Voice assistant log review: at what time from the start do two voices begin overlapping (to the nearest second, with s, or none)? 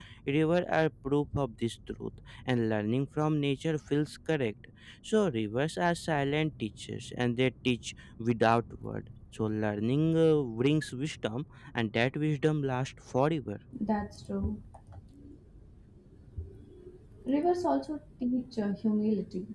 none